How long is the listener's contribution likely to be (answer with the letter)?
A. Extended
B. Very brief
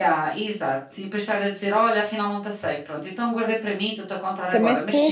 A